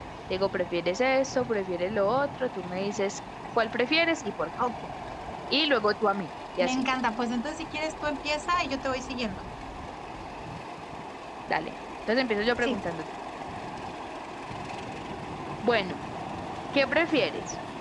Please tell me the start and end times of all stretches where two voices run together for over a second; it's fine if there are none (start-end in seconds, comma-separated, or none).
none